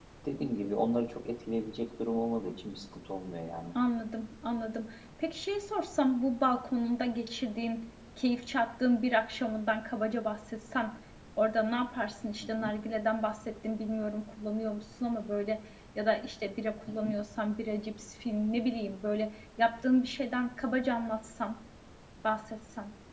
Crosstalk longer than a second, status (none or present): none